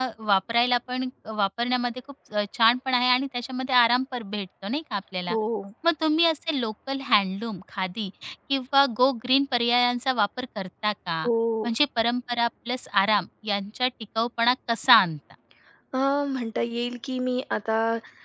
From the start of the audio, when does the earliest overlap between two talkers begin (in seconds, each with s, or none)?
none